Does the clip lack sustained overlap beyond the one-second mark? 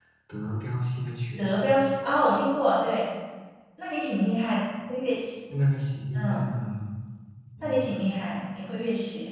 Yes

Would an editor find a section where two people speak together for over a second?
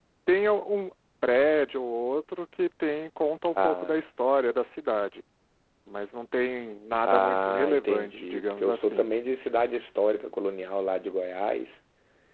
Yes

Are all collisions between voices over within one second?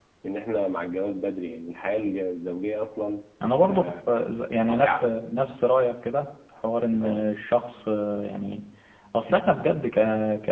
Yes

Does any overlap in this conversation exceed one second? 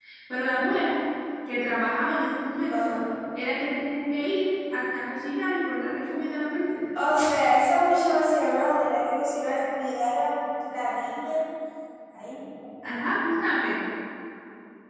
No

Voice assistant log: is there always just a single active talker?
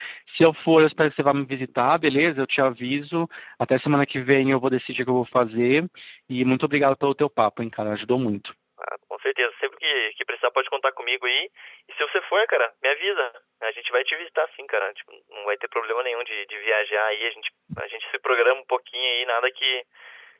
Yes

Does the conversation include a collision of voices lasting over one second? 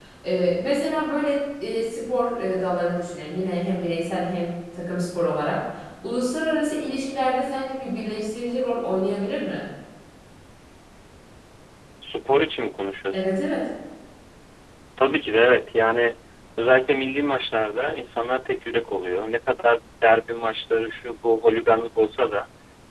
No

